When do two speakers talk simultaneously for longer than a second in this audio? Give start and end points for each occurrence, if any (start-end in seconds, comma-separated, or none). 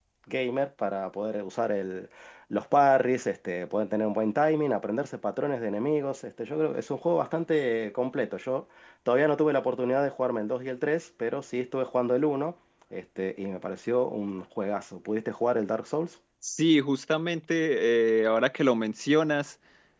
none